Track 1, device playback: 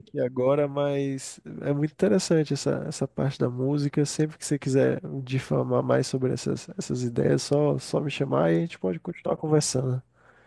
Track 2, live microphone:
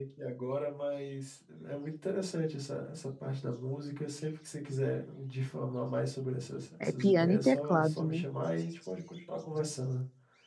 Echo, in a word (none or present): present